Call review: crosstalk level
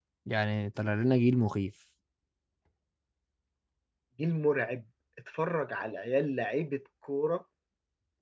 none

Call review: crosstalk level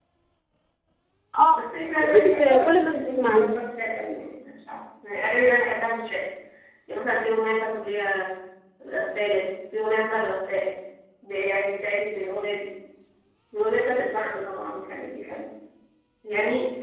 present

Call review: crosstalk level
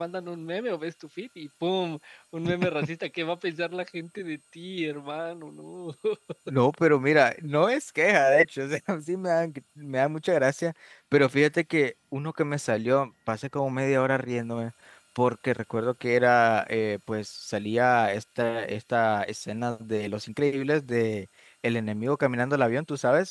none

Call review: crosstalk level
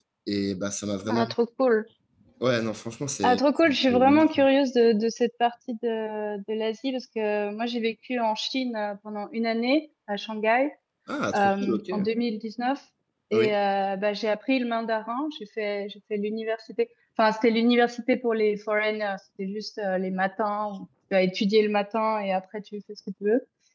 present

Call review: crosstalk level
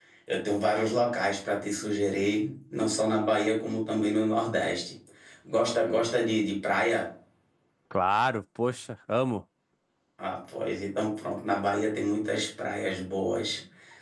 none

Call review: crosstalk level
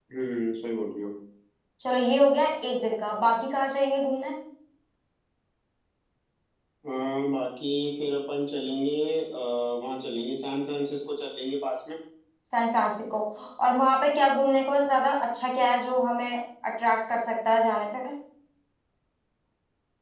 none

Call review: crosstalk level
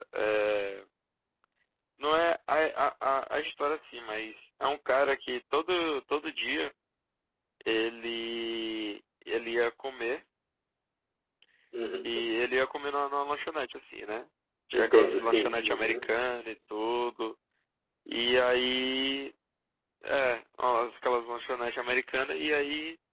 present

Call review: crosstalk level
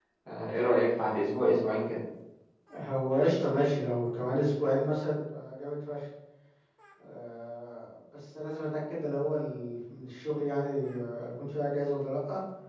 none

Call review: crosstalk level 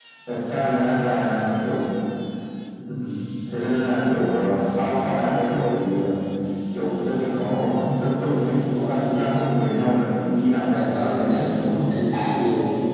present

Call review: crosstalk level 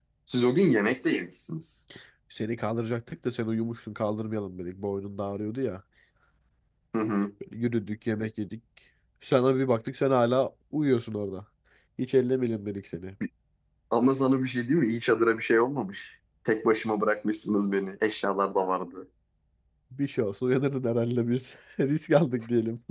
none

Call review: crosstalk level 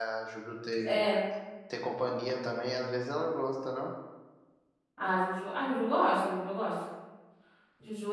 none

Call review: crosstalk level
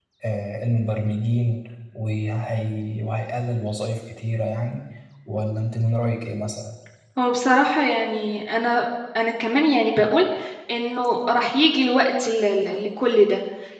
none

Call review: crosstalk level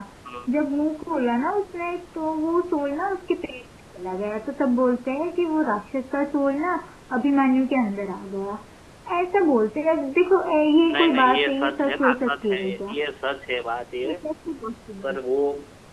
present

